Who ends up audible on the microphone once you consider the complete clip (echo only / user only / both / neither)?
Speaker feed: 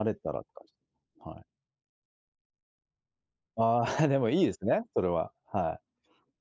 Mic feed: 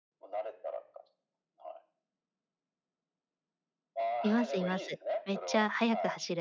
both